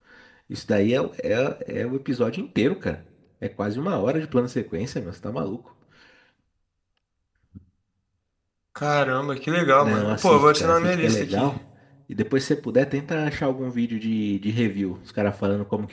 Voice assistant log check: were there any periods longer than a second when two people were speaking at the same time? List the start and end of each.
9.8-11.5

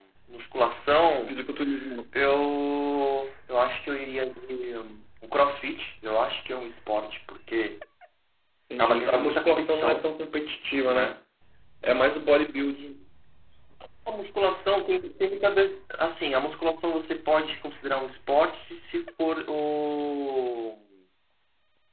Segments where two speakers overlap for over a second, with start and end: 8.8-10.1

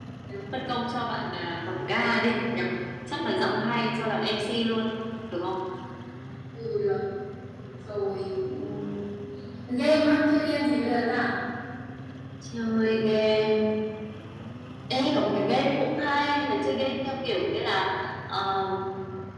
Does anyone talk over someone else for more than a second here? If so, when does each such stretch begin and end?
none

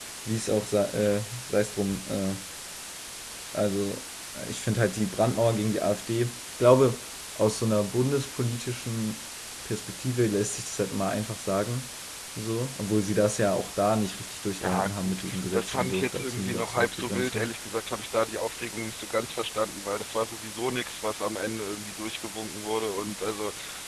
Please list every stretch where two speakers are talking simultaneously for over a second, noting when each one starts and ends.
14.6-17.5

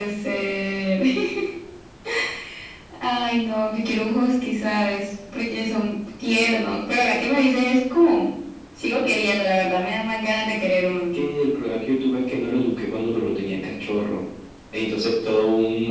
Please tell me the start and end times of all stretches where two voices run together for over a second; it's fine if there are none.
none

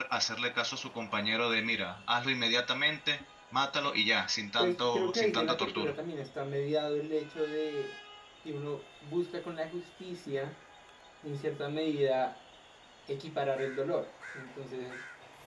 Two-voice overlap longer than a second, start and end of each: 4.6-5.9

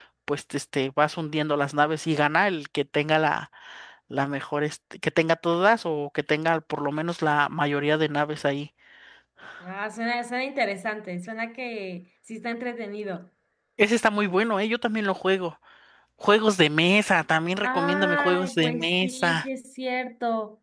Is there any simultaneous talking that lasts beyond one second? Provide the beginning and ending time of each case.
17.6-19.4

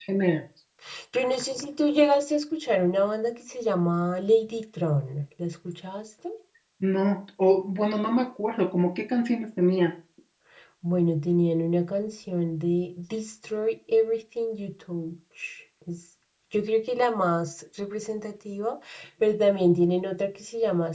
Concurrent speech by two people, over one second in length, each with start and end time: none

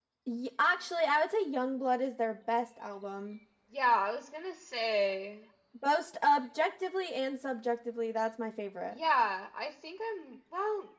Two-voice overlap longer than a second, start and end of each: none

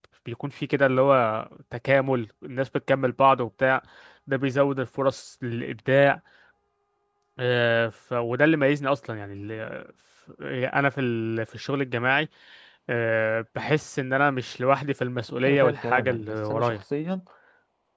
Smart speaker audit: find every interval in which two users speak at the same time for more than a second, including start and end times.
15.5-16.8

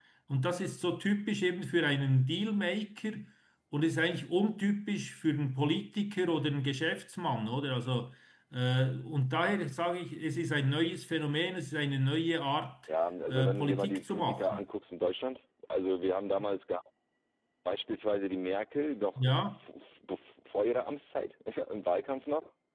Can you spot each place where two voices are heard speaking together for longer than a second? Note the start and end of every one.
13.3-14.6

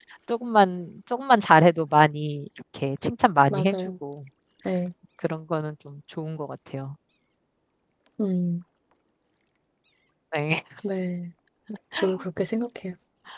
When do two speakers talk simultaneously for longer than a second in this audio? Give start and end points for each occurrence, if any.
none

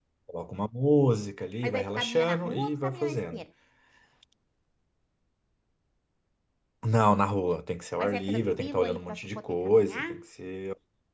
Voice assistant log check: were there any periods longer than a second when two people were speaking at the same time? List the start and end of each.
1.6-3.4, 8.0-10.0

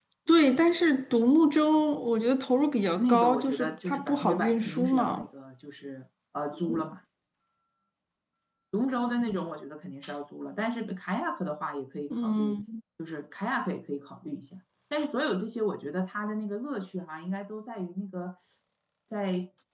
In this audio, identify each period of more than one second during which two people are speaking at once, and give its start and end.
3.0-5.3

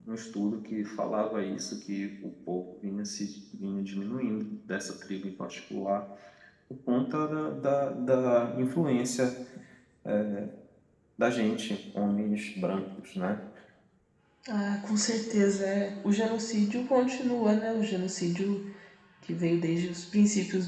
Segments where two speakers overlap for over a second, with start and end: none

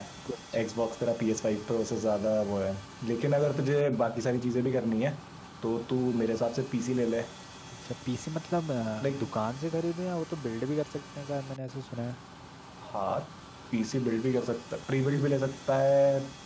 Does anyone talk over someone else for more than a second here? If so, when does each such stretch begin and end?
none

